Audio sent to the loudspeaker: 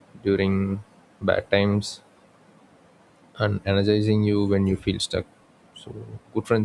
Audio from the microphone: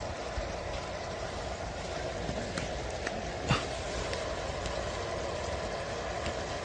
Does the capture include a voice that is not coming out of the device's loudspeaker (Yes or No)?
No